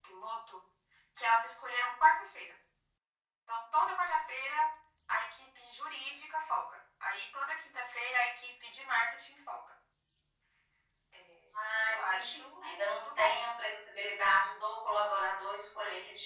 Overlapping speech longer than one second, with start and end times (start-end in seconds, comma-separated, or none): 11.8-13.5